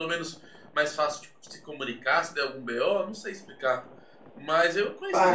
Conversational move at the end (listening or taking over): taking over